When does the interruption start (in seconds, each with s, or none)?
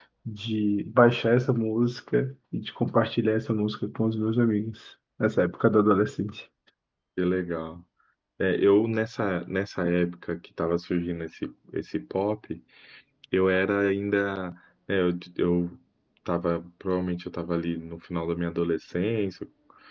none